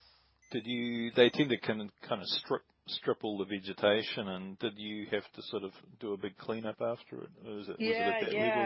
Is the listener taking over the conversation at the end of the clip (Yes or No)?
Yes